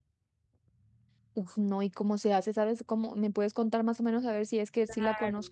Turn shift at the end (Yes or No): Yes